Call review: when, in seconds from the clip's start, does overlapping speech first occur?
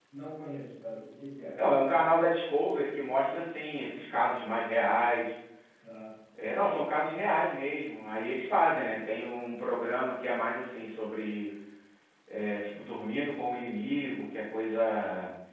none

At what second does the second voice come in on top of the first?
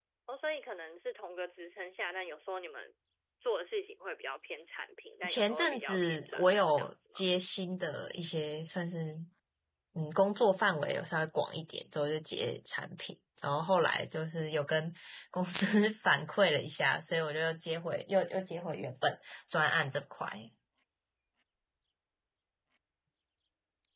5 s

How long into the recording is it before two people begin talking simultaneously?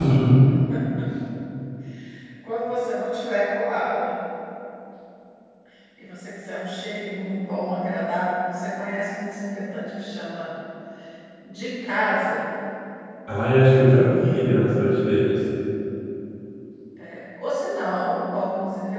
none

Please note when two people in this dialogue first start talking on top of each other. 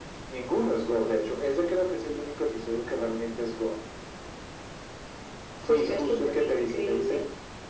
6 s

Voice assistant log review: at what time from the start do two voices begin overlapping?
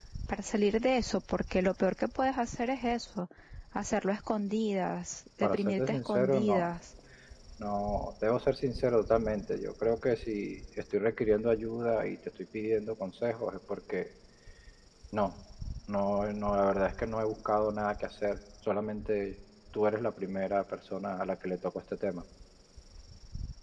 5 s

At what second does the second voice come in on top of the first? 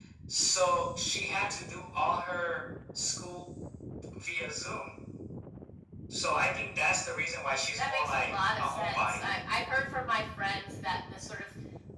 8 s

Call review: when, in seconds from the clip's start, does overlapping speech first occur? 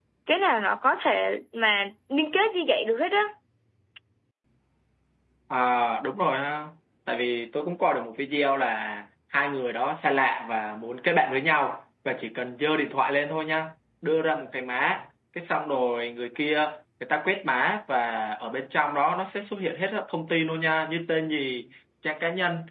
none

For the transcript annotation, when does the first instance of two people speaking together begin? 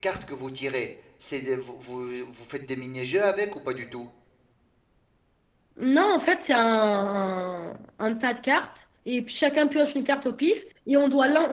none

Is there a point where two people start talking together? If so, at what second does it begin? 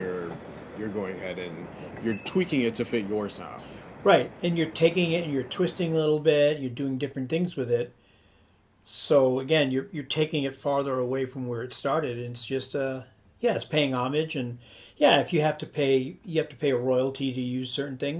none

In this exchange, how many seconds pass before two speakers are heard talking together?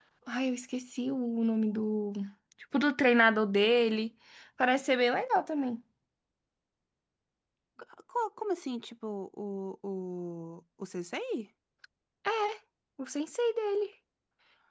none

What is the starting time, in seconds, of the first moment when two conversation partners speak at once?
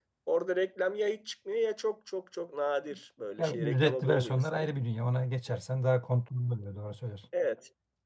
3 s

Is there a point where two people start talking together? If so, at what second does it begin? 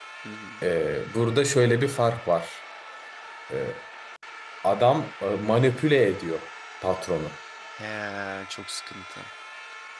none

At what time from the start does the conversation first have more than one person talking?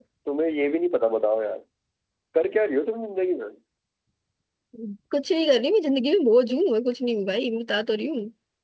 none

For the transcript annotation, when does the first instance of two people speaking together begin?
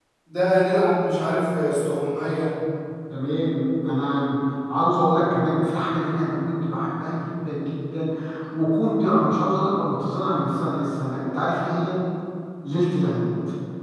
none

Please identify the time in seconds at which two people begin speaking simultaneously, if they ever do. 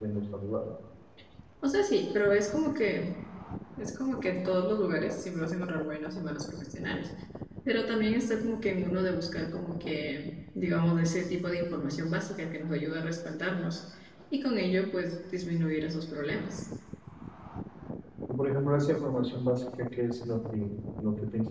none

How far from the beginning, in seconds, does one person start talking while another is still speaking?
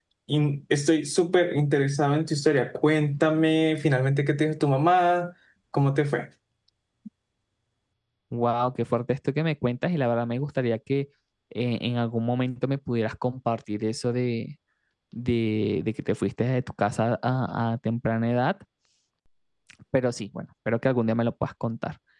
none

